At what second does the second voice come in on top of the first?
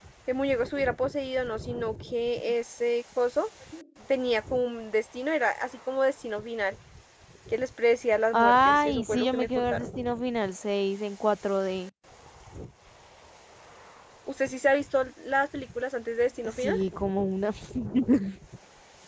8.3 s

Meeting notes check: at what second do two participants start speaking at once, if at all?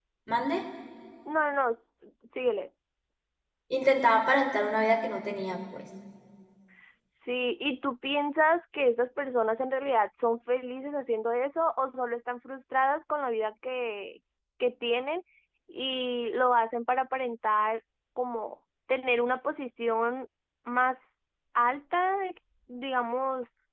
none

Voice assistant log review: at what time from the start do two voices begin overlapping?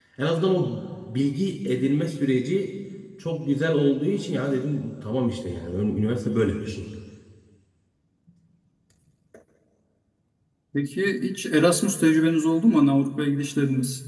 none

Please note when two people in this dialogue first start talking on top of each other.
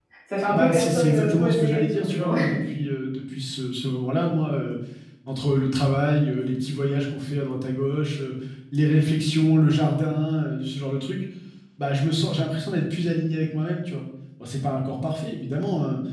0.5 s

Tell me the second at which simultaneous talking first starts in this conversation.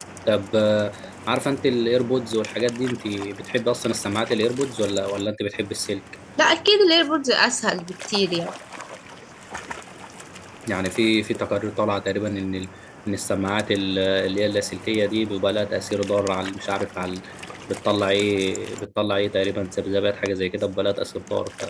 none

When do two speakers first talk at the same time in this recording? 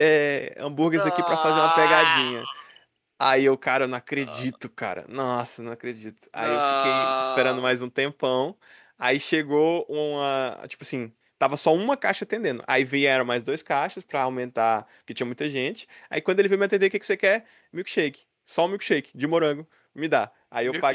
0.9 s

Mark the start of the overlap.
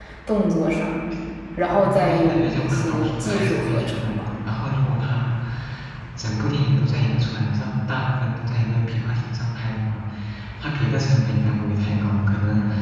1.7 s

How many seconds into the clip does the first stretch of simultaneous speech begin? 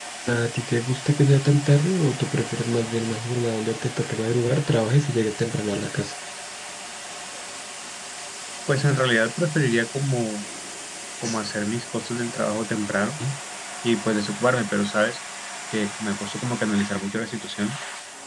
none

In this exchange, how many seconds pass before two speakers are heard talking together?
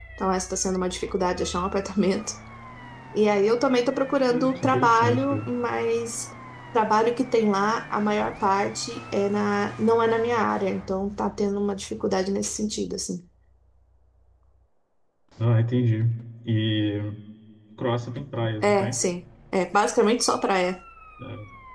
4.3 s

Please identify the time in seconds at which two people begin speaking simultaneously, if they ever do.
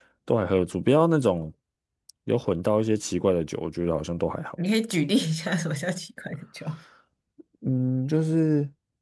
none

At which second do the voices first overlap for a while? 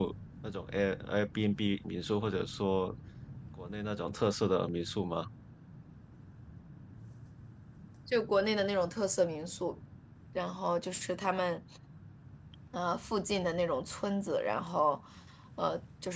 none

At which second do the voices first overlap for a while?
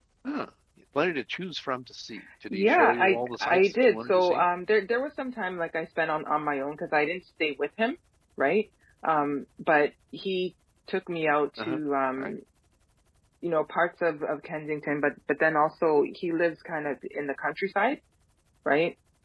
2.5 s

